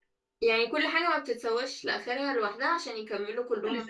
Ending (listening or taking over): taking over